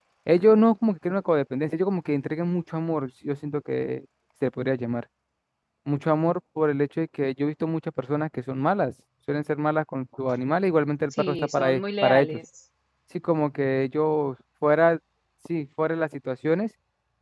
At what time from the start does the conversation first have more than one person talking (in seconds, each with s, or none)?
11.1 s